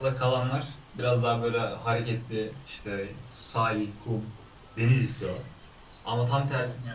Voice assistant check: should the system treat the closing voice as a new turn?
No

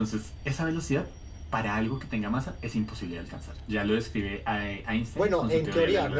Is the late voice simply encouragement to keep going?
No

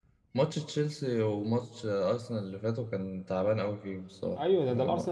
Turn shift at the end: Yes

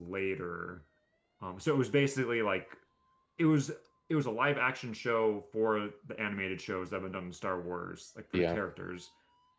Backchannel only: Yes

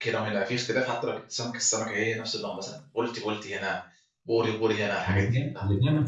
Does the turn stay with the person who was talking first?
No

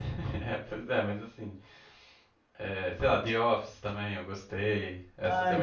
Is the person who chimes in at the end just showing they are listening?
No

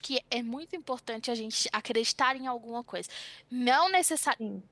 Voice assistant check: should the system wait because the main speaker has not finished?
Yes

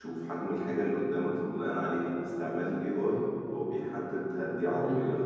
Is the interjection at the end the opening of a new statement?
No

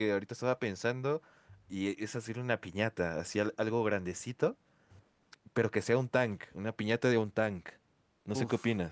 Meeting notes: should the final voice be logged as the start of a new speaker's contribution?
Yes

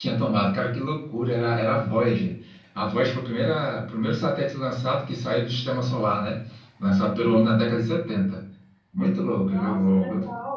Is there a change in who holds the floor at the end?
Yes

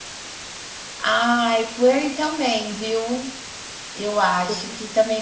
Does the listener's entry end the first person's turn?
No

